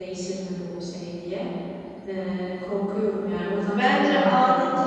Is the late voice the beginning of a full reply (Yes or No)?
Yes